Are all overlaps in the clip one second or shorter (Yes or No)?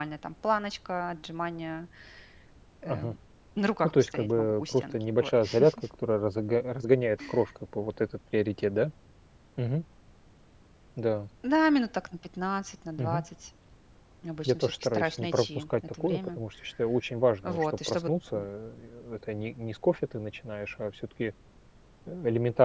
No